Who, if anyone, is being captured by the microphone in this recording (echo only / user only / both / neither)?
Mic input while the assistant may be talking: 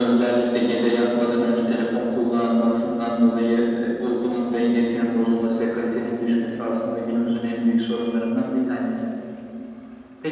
echo only